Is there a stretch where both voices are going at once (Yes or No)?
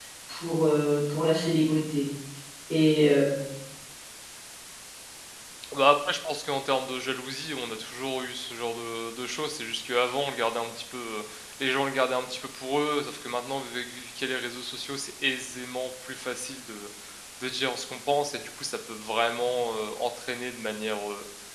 No